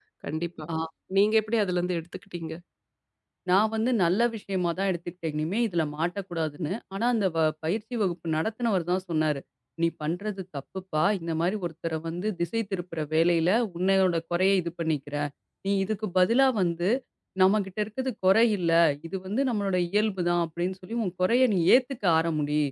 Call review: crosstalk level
none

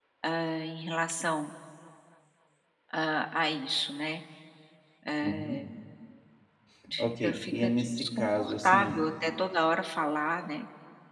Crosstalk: present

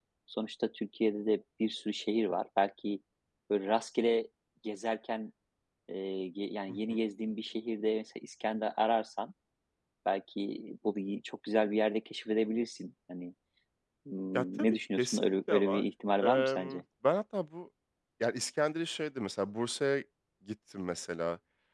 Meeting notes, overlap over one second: present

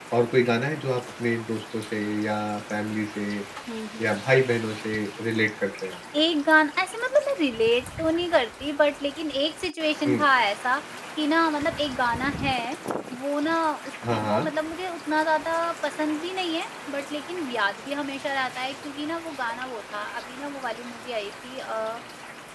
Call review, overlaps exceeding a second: none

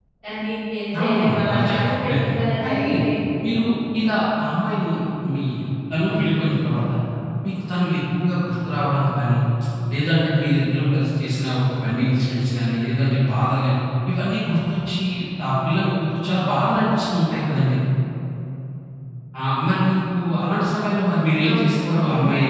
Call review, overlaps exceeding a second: present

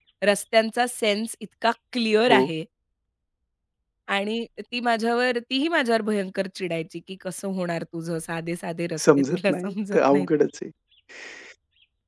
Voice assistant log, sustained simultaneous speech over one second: present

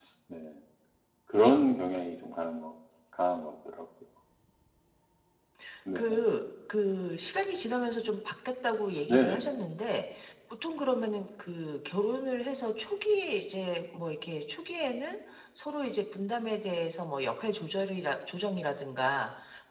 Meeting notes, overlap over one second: none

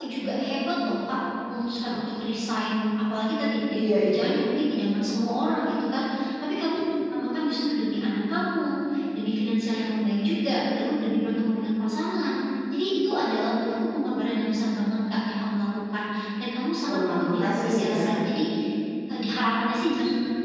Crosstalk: present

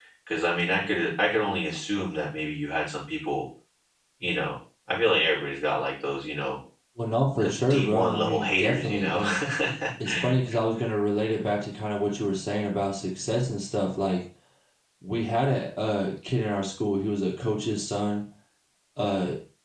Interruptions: present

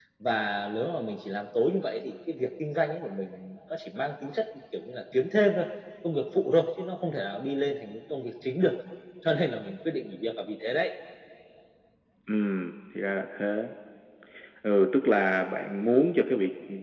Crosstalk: none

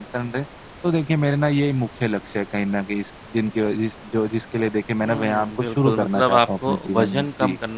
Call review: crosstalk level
present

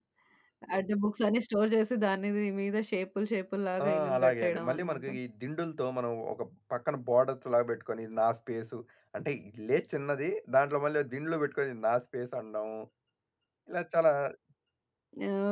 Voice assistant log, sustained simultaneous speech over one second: present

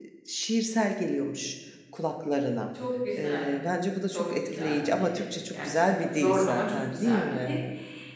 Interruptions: present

